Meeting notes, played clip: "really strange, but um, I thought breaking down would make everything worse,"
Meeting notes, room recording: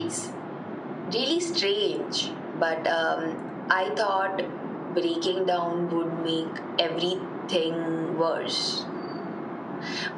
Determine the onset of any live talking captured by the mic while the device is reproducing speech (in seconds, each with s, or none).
none